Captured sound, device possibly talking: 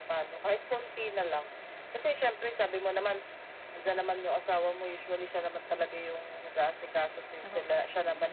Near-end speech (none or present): present